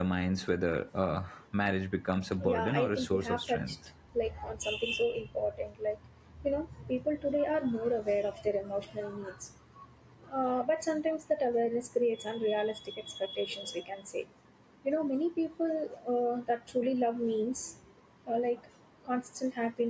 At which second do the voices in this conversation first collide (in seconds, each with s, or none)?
2.4 s